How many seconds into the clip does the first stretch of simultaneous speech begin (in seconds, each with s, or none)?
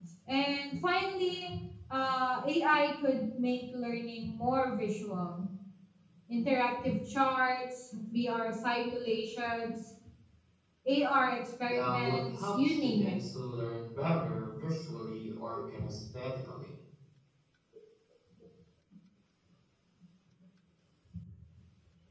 11.7 s